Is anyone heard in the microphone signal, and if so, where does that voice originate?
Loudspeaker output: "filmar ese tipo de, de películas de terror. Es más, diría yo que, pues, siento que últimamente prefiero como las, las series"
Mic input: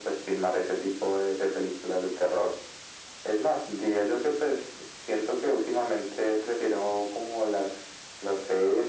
echo only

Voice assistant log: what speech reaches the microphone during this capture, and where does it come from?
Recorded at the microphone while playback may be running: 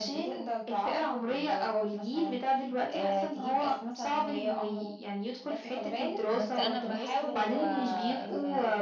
both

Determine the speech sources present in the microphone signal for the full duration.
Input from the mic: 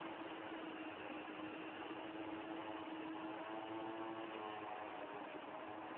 neither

